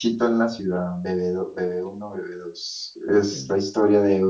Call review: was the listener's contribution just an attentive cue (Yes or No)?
Yes